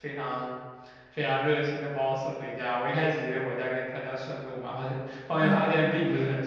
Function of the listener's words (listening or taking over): listening